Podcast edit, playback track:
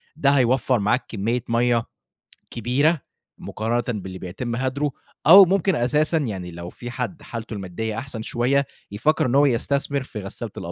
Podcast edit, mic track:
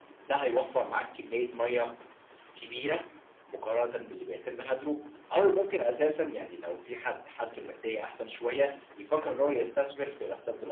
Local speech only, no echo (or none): none